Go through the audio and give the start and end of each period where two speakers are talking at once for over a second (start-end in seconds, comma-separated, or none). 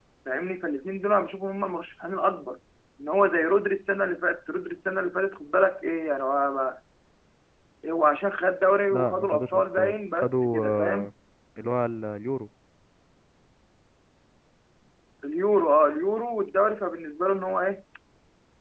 8.9-11.1